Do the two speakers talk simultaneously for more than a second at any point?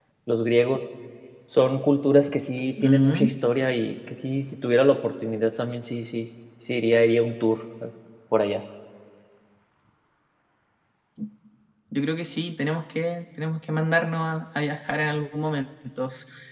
No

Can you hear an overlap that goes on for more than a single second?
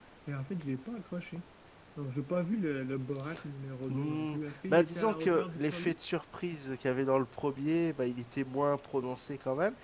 Yes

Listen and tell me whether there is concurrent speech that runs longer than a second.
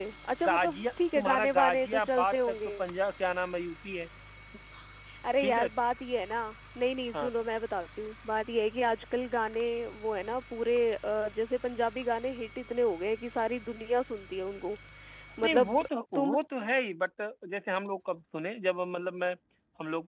Yes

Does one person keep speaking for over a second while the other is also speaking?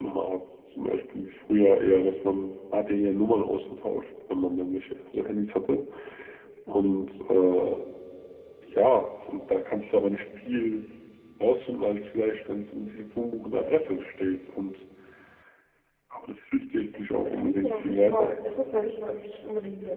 Yes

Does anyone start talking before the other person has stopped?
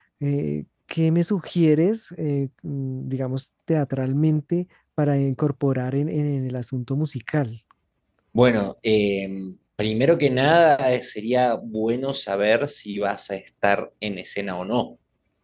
No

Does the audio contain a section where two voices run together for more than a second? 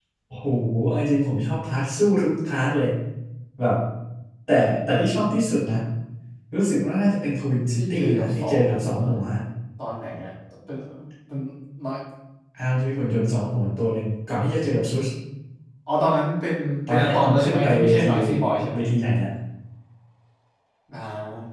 Yes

